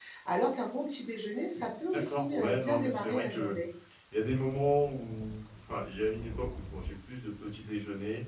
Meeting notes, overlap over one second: present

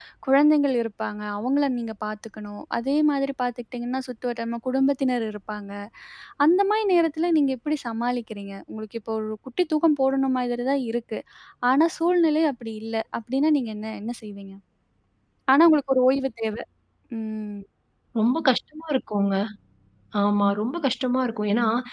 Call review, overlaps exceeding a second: none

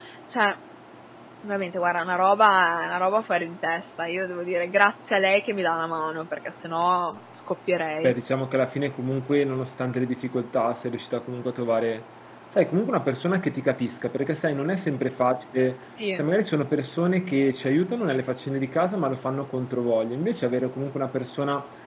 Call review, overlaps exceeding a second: none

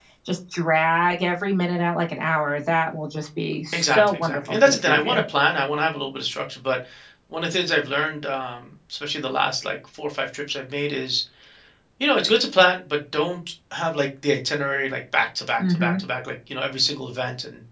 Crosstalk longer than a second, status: present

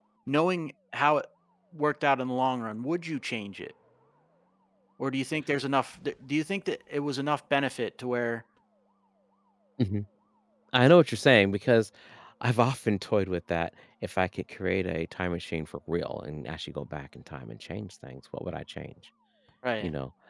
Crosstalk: none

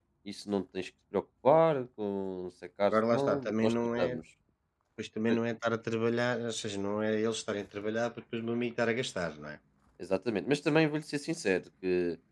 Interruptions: present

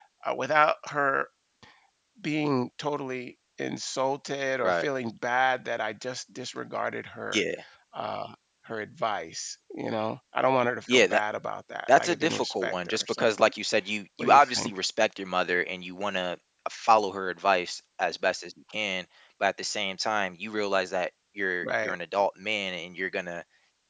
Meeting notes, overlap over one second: present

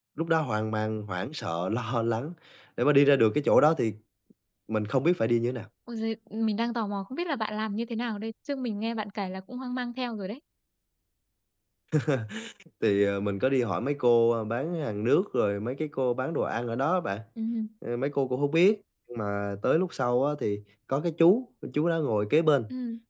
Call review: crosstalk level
none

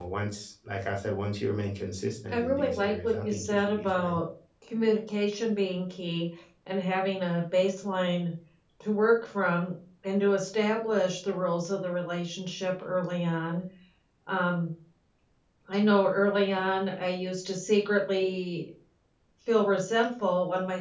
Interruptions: present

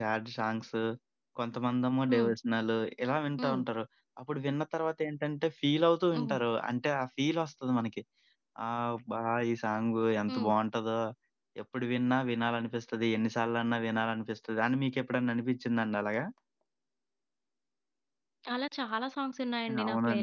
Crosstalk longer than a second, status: none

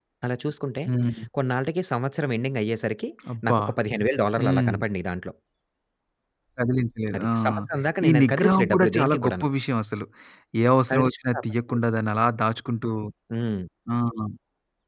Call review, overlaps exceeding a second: present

